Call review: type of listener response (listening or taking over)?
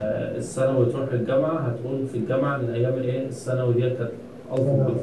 listening